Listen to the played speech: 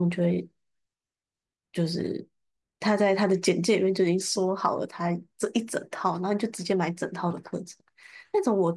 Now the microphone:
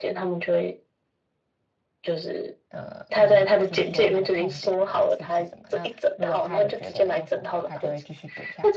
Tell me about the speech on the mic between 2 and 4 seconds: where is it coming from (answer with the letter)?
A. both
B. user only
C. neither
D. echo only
A